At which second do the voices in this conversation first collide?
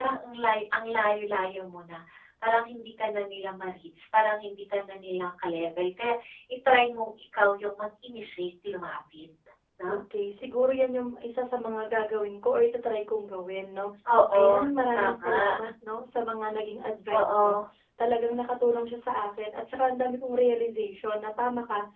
14.3 s

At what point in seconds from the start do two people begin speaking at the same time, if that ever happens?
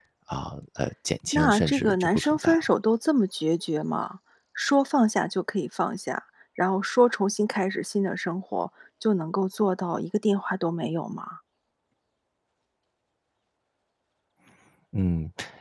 1.3 s

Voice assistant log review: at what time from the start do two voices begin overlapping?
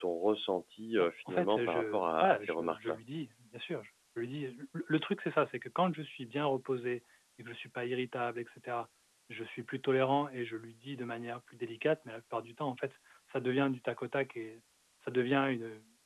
1.0 s

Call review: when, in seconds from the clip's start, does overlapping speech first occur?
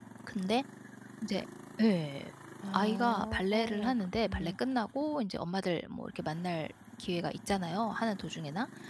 2.7 s

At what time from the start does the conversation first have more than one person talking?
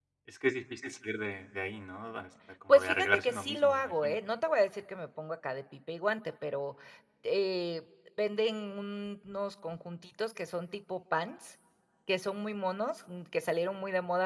2.7 s

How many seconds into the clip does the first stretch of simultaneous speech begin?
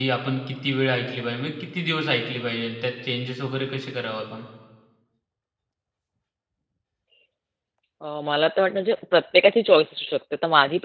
none

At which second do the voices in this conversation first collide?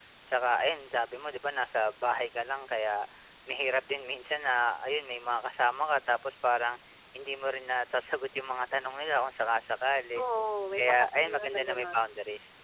10.8 s

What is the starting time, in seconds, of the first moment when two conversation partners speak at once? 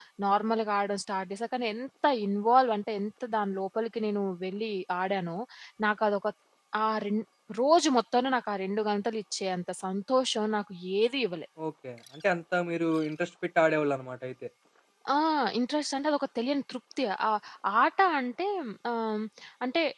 none

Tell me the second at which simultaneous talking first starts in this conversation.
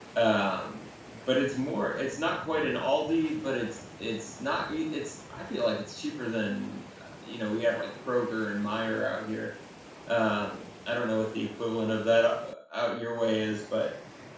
none

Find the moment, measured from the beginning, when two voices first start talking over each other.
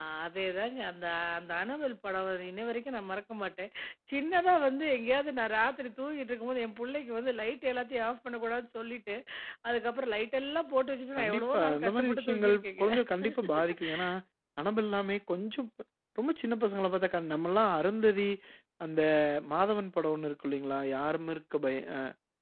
11.2 s

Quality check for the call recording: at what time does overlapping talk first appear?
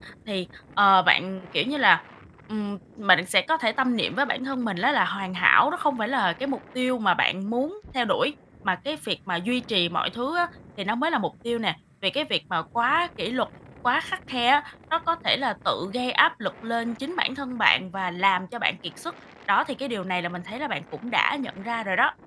none

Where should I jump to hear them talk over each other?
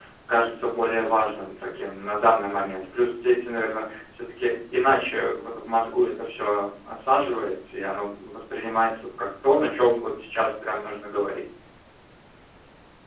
none

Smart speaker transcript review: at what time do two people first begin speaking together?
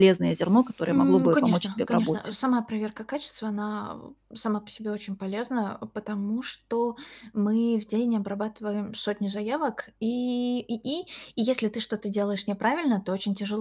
0.9 s

